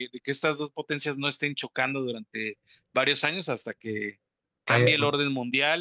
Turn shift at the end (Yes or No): No